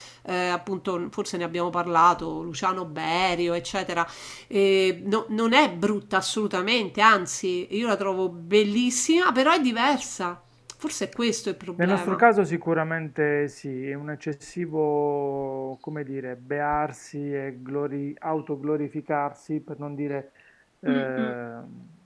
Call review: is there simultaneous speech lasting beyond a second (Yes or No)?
No